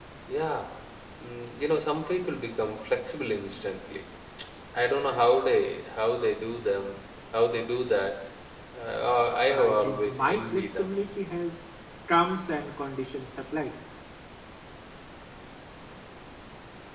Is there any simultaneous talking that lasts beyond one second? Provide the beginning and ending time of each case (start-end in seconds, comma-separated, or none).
9.5-10.9